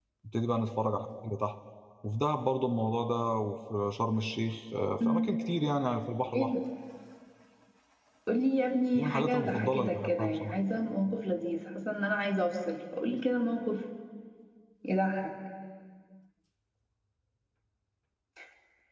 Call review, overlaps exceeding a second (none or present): present